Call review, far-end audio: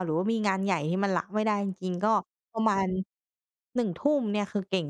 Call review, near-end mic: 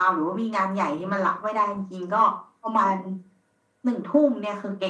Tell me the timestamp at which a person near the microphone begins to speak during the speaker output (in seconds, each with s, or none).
none